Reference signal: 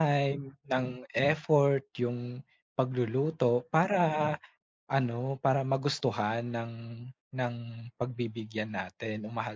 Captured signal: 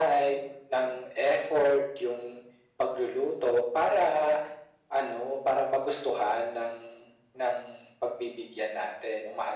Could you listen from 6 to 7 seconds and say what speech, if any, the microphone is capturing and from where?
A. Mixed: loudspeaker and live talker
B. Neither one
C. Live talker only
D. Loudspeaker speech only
D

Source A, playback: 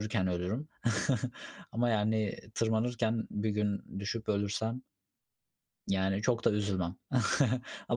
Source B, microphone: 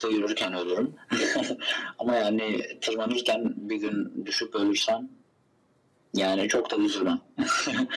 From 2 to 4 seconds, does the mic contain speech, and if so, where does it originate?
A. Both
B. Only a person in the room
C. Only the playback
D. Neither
C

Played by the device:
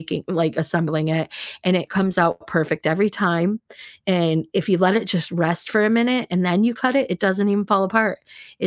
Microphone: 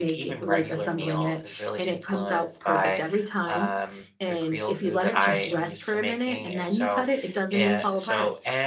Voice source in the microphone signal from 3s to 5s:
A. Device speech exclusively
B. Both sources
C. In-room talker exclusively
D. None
B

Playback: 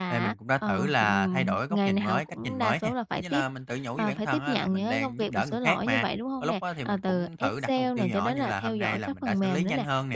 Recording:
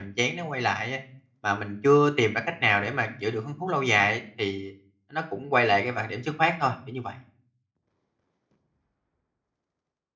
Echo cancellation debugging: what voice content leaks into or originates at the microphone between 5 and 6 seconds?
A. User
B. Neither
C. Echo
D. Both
A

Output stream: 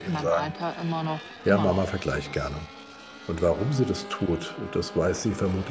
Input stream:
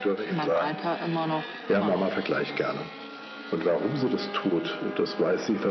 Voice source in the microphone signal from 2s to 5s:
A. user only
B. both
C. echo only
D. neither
C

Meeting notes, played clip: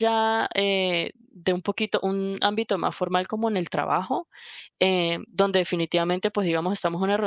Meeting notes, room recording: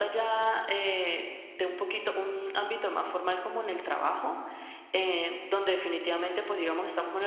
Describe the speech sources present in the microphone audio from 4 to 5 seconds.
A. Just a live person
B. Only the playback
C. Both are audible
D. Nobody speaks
B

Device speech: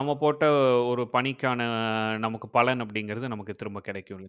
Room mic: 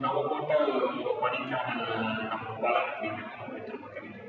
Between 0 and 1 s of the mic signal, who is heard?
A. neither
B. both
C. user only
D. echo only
D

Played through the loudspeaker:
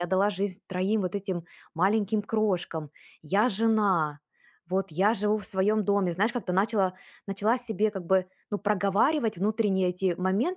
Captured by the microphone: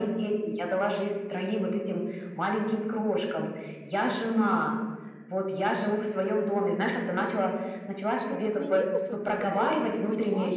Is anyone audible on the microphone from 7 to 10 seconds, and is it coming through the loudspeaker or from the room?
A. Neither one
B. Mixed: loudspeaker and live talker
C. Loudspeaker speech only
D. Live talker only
B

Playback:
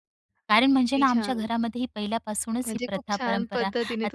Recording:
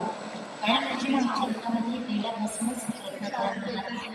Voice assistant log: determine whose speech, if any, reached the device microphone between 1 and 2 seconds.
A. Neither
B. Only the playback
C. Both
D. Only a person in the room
B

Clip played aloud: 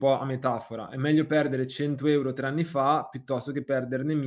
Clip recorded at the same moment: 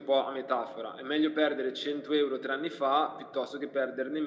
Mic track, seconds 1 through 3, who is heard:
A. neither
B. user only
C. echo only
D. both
C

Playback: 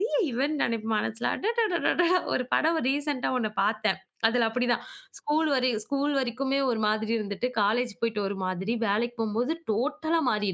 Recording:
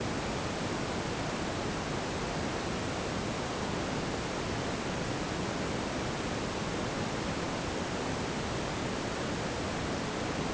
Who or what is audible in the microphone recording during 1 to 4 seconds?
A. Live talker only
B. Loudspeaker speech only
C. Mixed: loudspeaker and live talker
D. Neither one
D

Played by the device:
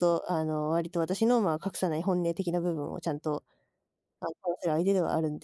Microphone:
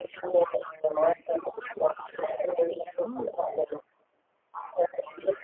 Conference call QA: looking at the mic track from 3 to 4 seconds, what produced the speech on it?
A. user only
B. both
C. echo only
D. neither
B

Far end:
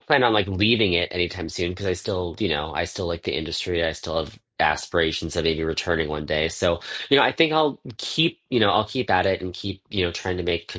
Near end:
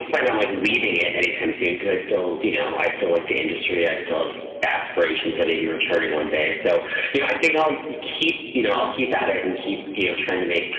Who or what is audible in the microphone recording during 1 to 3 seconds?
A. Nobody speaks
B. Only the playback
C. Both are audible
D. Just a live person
B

